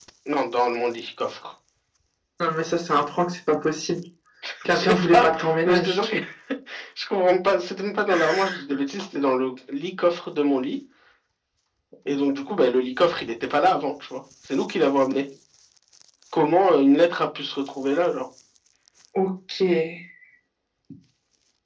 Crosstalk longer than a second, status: present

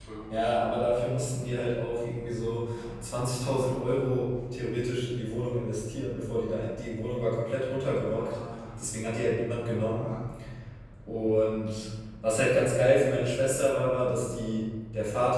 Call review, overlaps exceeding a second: none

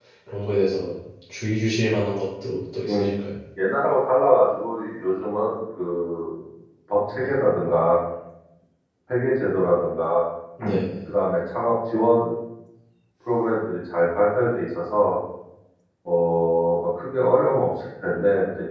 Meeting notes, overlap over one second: none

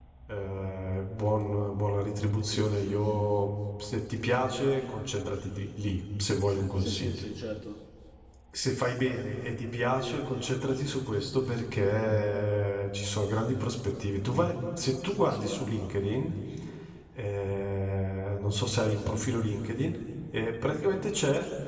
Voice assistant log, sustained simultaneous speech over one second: none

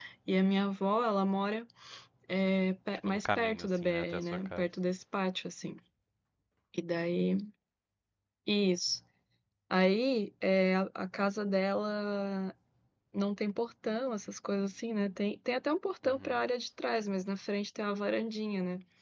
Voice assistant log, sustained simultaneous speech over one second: present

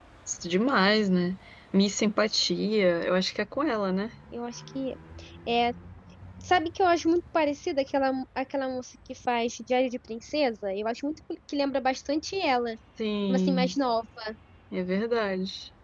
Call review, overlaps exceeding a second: none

